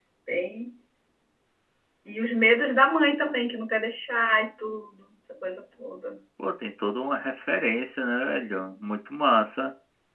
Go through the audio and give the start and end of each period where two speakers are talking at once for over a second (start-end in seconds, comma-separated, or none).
none